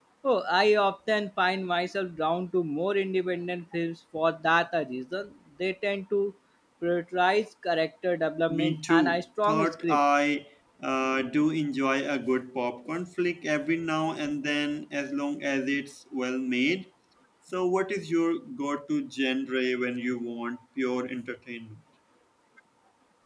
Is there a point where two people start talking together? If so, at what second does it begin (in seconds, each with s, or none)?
8.5 s